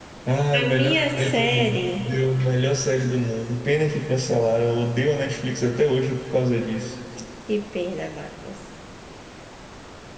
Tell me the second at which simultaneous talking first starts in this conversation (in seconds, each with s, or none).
0.5 s